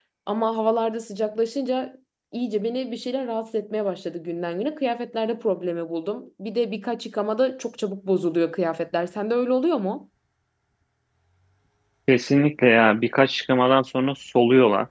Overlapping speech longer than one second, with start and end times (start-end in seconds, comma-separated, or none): none